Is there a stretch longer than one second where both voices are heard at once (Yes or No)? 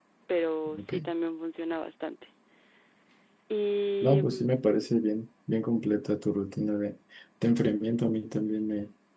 No